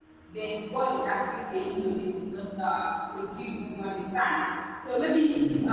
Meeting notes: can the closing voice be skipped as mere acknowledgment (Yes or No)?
Yes